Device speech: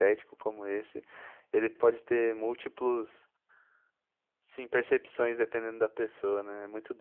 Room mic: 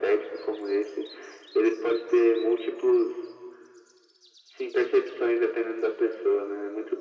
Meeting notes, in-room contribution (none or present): none